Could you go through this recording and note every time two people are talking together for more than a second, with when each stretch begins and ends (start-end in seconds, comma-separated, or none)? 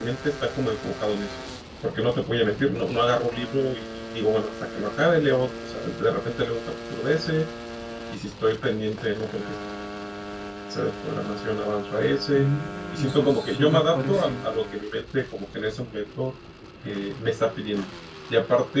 12.9-14.4